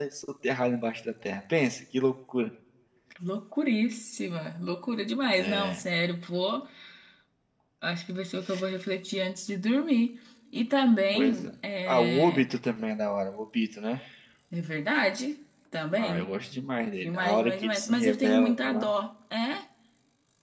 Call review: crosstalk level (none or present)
present